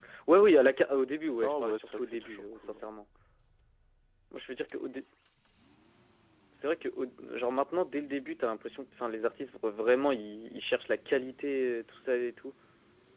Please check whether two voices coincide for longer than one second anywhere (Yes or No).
Yes